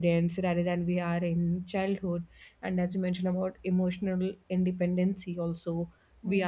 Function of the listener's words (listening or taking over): listening